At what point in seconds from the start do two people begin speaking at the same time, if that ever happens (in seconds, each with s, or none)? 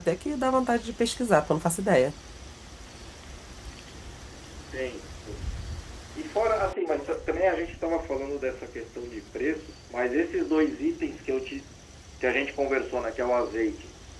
none